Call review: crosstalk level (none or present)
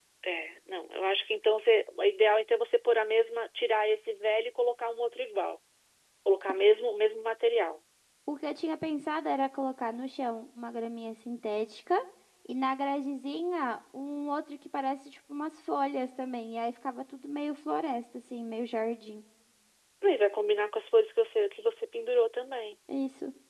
none